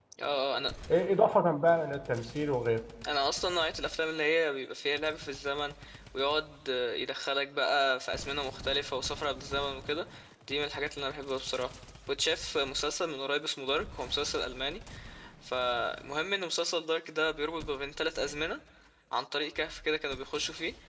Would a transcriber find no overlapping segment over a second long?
Yes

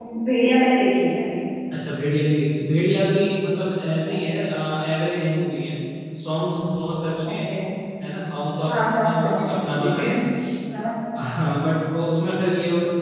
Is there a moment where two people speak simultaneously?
Yes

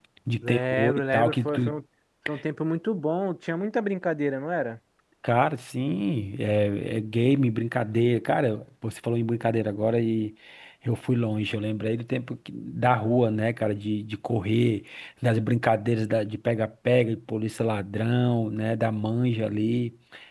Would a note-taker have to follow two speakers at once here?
Yes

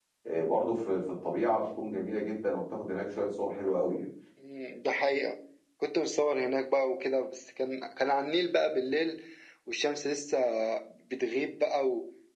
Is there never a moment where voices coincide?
Yes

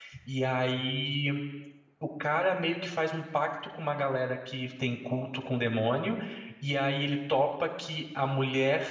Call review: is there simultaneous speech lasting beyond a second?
No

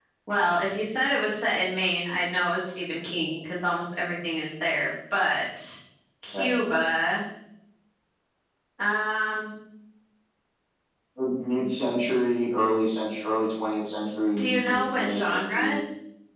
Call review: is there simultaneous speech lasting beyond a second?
Yes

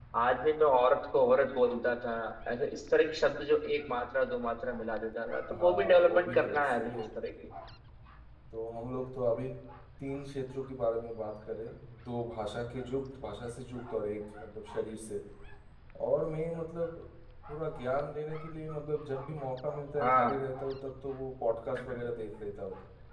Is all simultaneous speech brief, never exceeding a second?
No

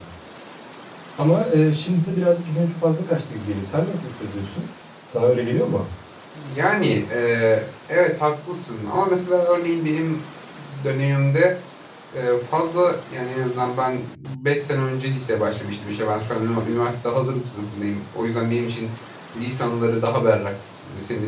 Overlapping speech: No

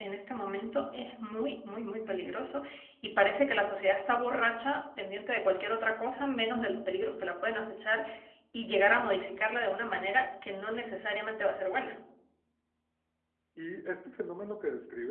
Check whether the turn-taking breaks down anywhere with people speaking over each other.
No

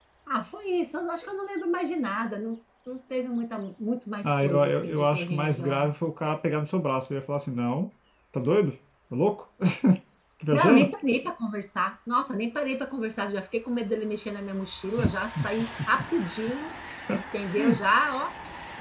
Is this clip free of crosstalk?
No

